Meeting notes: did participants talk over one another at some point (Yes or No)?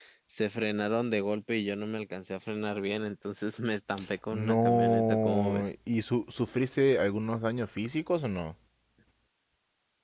Yes